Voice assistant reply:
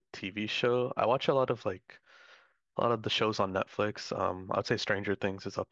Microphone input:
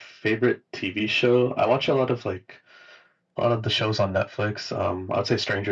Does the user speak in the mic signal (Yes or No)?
No